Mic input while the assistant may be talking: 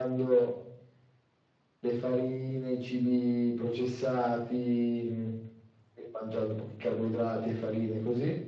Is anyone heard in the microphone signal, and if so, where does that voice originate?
echo only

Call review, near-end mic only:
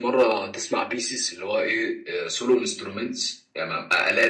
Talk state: echo only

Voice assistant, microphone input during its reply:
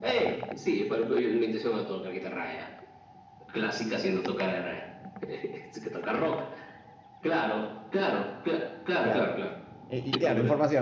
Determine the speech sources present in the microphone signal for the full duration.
both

